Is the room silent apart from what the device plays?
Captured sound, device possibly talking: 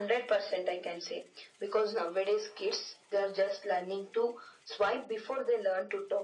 Yes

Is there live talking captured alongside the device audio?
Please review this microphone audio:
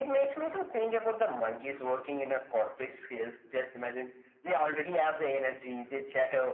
No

